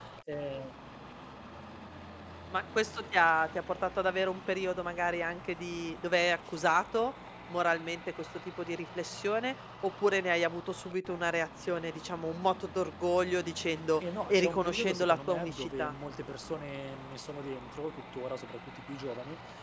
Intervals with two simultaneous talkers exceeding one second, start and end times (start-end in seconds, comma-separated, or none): 14.3-15.9